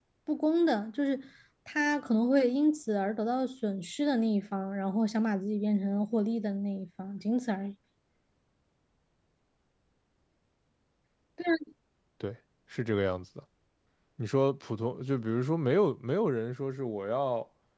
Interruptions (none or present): none